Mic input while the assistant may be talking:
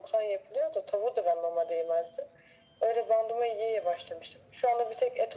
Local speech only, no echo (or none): none